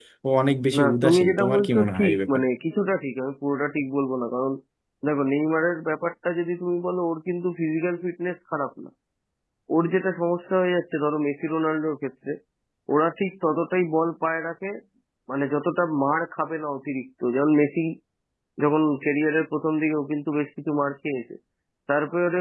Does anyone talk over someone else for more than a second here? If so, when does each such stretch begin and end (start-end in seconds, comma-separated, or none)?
0.8-2.4